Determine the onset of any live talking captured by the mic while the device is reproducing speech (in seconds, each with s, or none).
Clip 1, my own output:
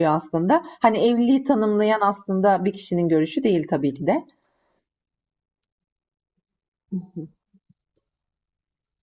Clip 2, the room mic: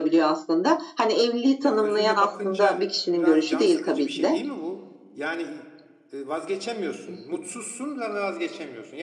1.6 s